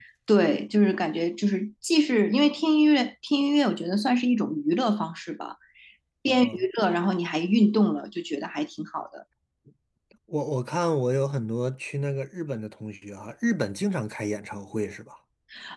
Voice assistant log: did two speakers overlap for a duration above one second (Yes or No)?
No